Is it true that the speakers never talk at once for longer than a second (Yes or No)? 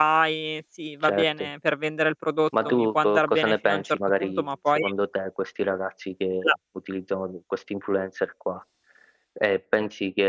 No